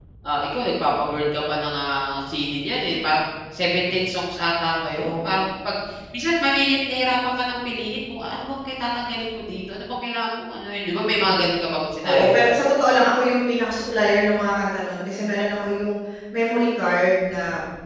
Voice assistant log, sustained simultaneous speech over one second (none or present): none